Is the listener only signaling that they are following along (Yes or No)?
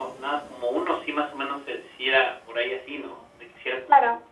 No